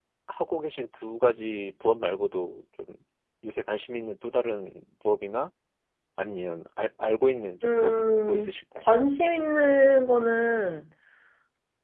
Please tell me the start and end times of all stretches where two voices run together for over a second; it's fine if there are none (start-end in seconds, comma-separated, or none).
7.6-9.0